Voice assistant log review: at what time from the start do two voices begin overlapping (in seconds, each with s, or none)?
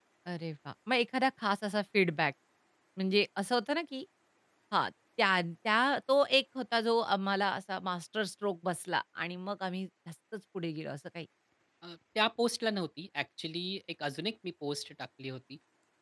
none